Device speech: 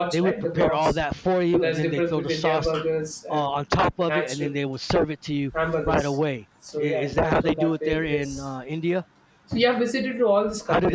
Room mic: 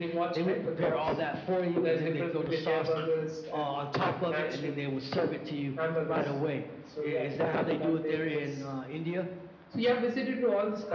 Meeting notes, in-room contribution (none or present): none